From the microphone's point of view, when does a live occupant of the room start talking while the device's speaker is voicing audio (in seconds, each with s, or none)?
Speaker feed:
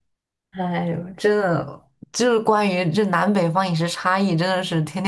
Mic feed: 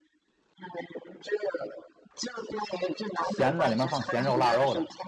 3.2 s